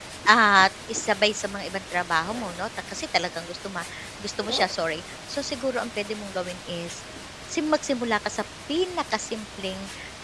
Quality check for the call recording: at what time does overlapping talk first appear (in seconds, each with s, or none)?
none